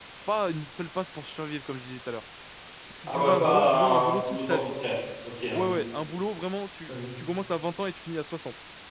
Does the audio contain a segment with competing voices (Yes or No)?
Yes